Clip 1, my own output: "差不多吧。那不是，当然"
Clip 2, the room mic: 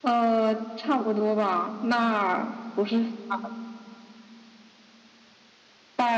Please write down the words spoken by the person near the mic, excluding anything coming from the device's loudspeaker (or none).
none